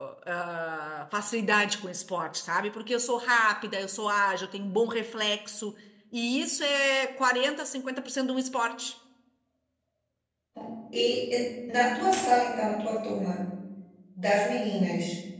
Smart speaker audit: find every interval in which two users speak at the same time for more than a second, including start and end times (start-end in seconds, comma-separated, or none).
none